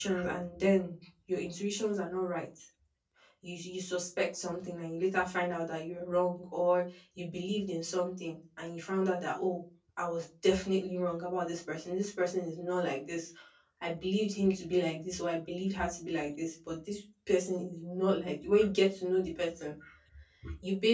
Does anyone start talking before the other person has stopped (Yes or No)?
No